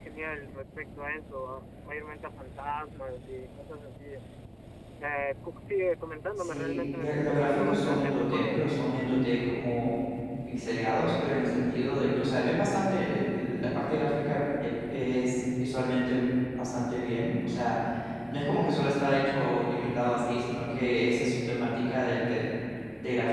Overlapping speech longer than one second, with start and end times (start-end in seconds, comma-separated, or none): 6.4-8.6